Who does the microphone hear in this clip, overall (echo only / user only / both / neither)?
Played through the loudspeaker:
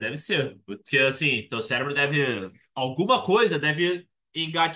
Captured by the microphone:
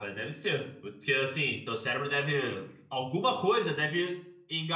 echo only